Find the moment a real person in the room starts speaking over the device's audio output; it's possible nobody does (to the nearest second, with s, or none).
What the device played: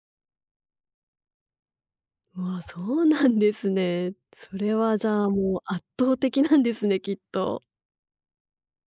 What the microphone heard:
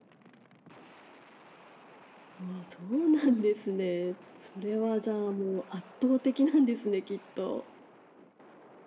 none